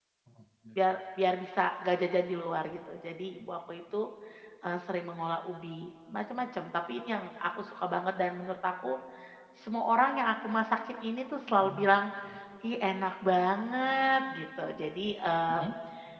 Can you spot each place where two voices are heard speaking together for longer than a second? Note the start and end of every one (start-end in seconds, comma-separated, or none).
none